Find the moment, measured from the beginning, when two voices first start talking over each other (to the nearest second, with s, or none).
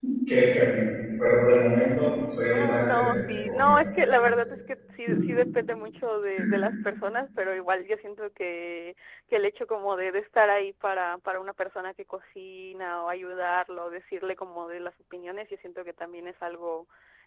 3 s